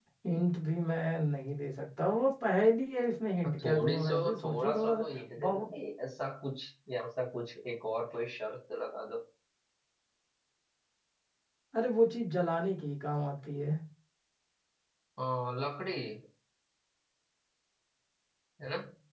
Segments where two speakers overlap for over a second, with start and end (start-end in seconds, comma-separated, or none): 3.5-4.9